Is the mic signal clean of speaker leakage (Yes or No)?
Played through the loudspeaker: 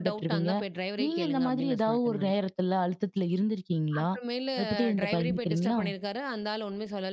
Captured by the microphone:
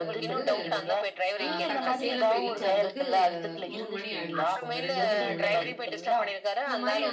No